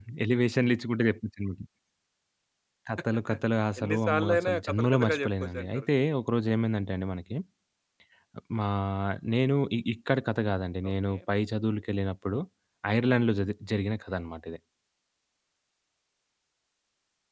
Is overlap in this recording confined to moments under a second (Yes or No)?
No